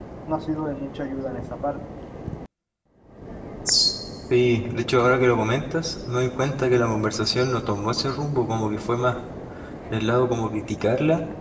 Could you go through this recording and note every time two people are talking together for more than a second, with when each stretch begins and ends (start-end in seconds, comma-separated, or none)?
none